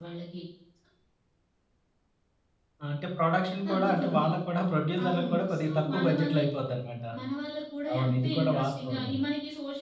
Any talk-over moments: Yes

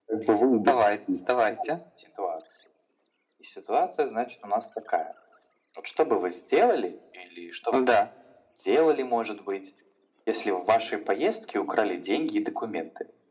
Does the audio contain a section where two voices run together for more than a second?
No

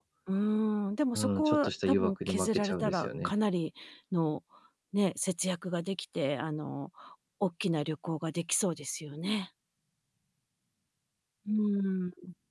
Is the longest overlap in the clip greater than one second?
Yes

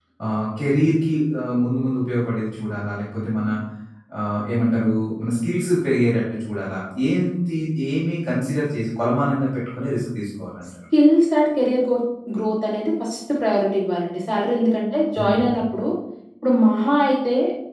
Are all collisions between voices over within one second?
Yes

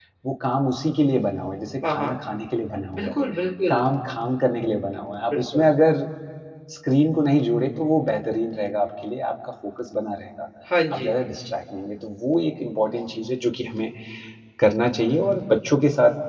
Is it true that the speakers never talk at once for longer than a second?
Yes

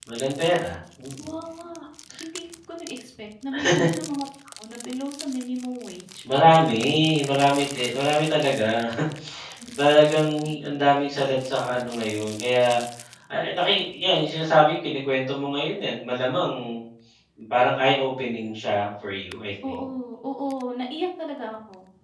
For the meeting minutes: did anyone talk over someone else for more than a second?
No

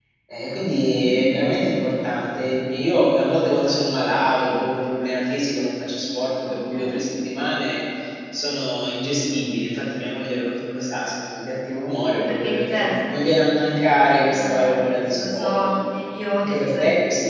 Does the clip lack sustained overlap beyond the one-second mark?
No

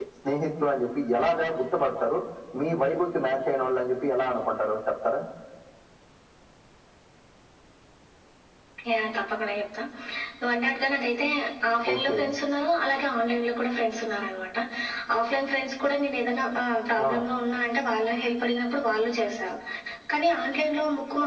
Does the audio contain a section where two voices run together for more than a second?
No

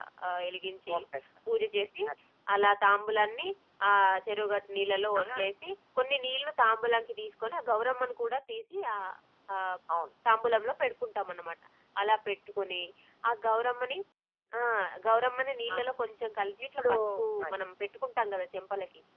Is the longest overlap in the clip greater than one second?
No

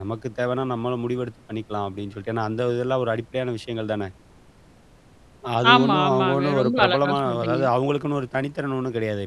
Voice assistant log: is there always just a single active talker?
No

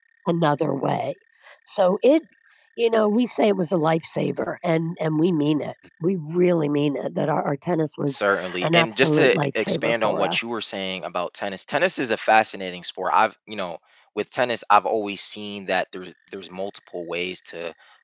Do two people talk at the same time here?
Yes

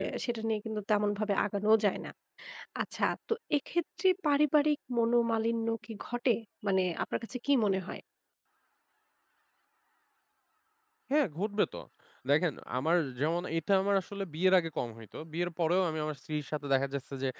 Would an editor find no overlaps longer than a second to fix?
Yes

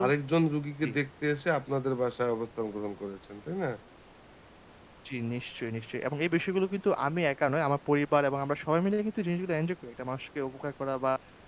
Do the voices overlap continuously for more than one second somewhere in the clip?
No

